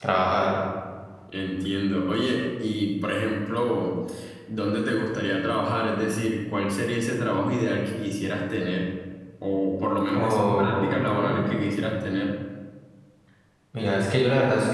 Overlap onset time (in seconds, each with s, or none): 10.2 s